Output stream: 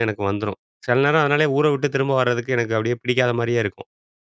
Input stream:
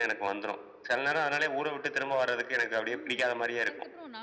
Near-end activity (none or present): present